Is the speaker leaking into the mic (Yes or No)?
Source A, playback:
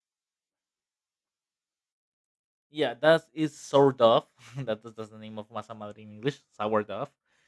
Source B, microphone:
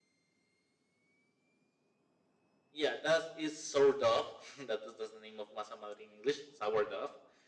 Yes